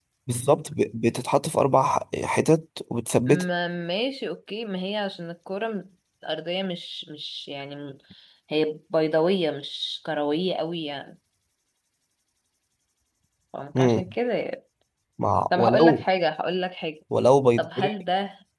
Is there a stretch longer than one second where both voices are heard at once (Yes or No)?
No